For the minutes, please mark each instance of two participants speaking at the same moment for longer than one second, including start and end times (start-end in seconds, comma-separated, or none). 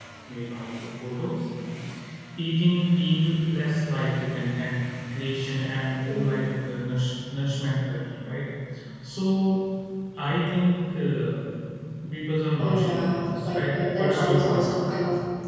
12.6-15.0